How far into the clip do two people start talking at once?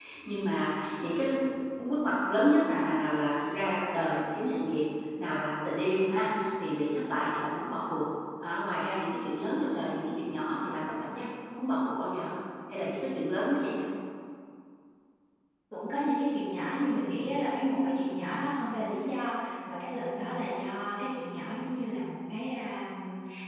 none

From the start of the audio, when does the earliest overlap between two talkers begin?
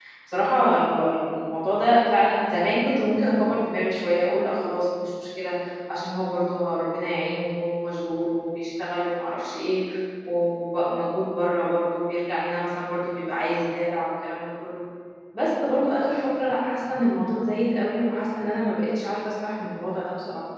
none

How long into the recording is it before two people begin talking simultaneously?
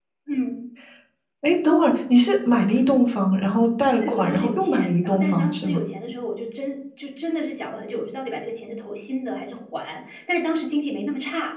4.0 s

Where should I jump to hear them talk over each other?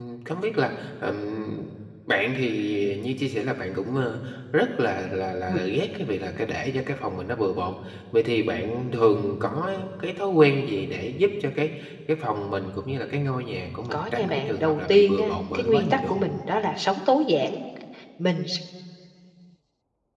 13.9 s

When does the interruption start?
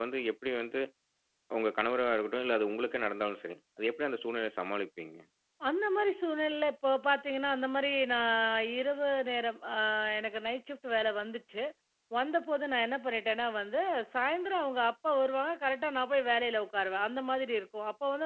none

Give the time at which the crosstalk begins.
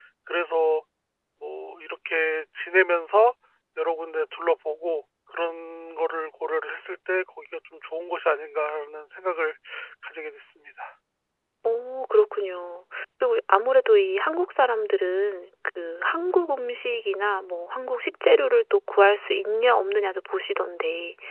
none

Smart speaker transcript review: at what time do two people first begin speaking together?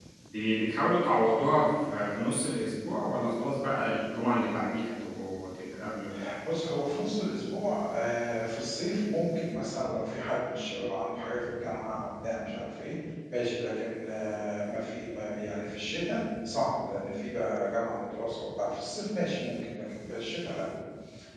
none

